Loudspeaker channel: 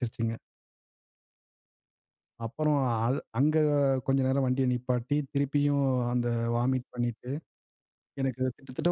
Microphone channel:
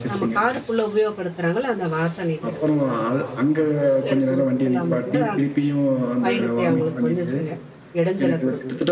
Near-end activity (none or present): present